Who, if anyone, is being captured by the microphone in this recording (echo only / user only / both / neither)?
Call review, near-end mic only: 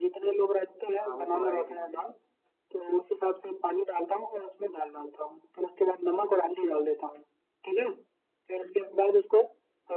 both